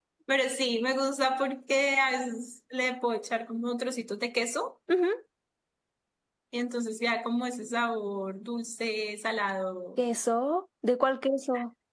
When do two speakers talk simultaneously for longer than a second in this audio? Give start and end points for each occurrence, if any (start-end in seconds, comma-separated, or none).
none